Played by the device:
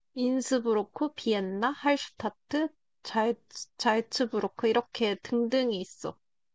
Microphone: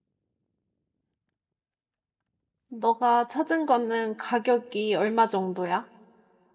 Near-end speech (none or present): present